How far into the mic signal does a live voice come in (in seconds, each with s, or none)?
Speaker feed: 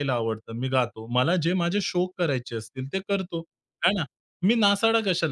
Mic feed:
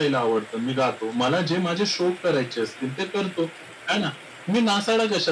none